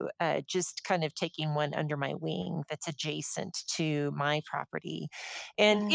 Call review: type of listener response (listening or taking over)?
listening